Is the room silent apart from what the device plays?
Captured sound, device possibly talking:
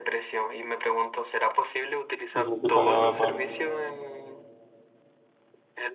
No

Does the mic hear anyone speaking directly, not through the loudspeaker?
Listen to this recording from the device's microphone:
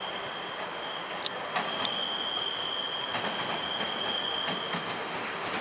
No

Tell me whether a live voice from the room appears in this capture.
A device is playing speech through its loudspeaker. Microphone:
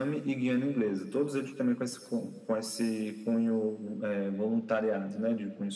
No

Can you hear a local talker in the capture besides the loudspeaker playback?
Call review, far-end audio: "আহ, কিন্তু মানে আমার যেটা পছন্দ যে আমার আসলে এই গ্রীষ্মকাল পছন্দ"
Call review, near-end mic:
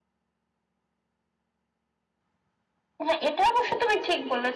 Yes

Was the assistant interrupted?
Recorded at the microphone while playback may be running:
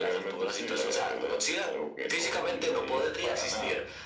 No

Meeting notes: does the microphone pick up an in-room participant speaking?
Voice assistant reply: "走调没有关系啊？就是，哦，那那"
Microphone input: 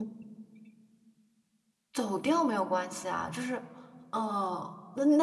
No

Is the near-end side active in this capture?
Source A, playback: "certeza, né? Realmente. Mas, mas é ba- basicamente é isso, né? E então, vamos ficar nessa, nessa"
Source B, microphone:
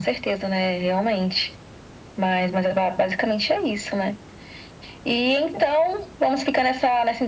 No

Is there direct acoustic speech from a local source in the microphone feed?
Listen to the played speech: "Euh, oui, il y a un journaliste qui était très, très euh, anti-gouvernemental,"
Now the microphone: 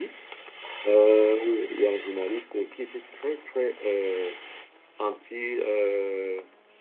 No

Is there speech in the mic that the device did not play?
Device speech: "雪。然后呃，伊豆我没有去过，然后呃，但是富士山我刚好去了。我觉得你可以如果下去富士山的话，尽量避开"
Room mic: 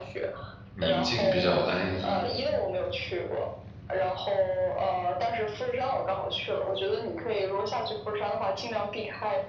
Yes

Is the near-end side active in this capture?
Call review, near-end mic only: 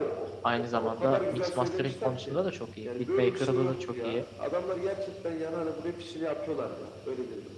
Yes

